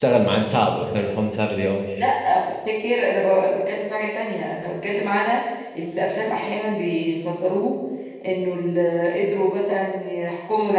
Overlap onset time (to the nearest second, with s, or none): none